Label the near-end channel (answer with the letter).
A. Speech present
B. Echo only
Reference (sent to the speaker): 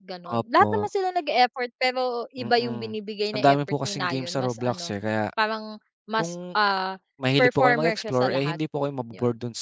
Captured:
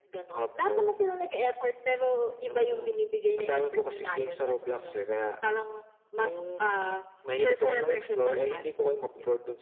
B